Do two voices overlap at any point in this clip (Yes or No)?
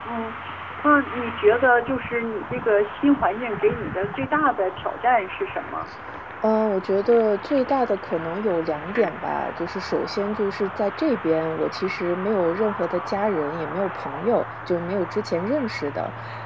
No